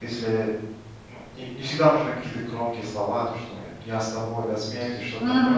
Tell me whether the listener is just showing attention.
Yes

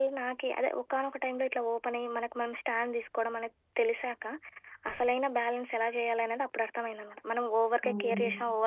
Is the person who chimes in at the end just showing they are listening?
Yes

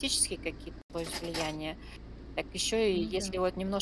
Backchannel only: Yes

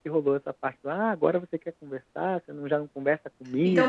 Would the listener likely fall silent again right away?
No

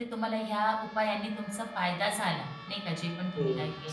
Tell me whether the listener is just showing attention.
No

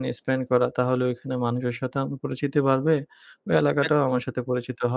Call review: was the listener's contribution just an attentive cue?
Yes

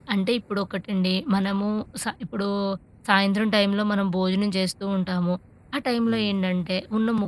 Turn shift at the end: No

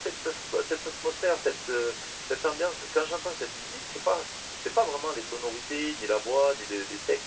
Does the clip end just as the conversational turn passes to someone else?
Yes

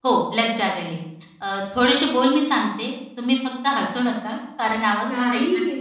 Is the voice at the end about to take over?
Yes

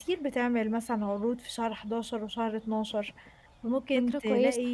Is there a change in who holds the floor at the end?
No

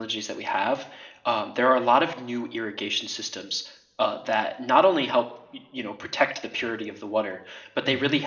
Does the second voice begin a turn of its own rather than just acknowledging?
No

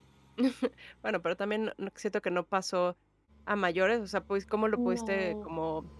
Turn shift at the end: No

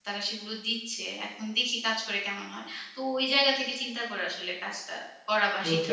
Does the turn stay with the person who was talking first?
No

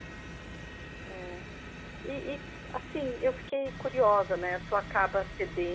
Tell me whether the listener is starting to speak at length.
No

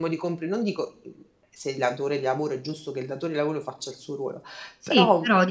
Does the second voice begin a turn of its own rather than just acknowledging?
Yes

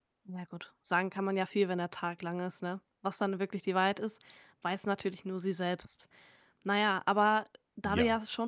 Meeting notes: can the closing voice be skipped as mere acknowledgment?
Yes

